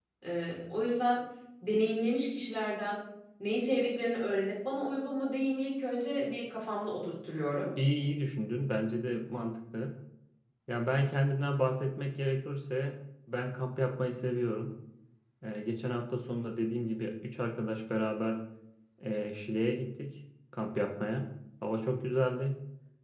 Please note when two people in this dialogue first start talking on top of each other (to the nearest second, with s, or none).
none